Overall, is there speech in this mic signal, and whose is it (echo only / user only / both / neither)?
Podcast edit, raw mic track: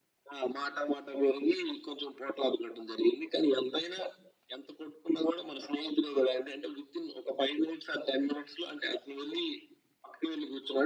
echo only